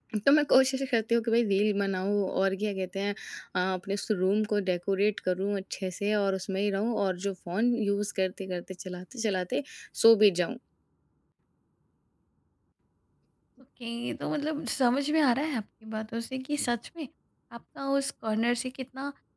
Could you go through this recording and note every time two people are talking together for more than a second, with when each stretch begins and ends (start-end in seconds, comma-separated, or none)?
none